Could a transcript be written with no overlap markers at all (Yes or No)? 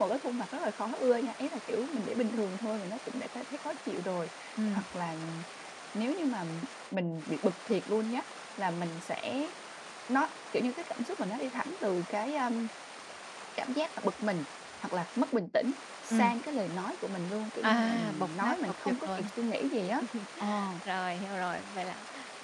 No